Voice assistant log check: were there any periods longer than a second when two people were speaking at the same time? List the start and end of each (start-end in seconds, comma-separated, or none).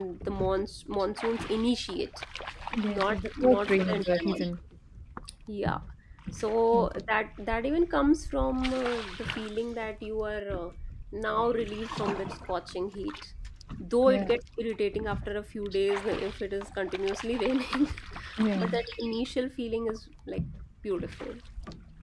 2.9-4.4